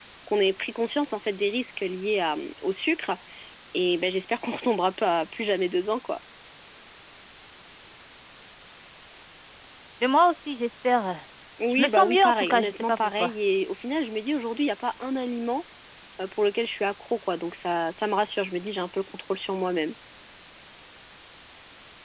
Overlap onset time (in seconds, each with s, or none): 11.7 s